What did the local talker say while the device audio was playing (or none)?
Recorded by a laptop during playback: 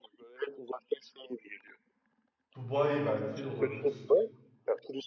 Dubai belki olabilir.